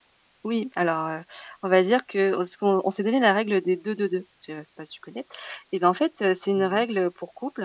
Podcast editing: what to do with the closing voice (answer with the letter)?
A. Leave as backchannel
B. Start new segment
A